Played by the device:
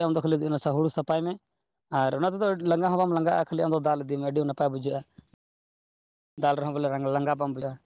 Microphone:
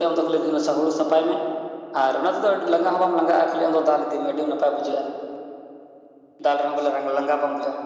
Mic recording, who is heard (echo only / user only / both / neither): echo only